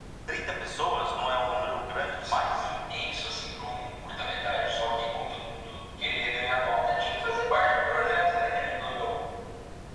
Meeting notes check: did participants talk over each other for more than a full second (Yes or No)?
No